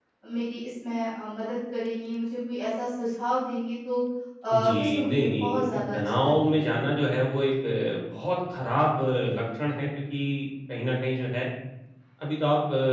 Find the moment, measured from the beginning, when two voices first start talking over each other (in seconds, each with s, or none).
4.5 s